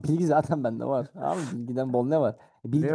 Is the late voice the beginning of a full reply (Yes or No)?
No